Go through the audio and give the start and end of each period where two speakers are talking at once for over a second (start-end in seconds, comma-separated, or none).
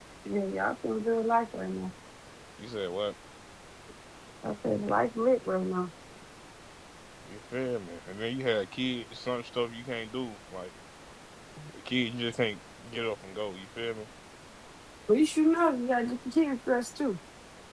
none